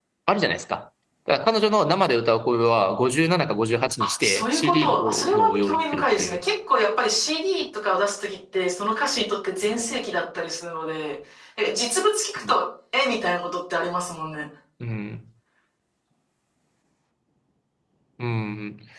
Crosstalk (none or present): present